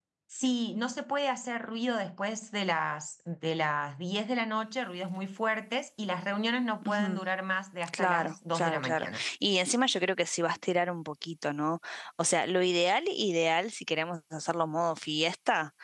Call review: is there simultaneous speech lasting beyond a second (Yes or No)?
Yes